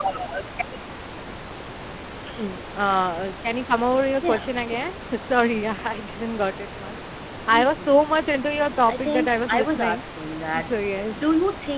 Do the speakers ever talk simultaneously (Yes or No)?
Yes